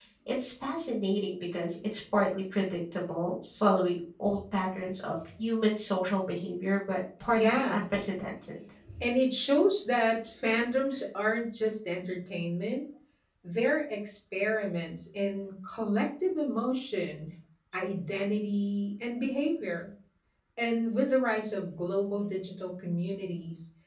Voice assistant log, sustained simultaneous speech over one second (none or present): none